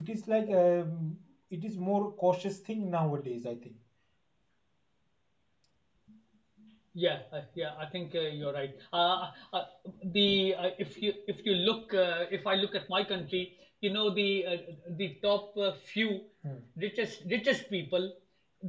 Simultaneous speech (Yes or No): No